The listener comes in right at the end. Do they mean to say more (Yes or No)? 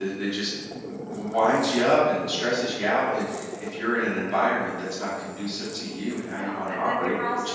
Yes